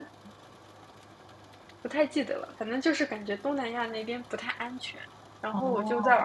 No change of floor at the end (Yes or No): Yes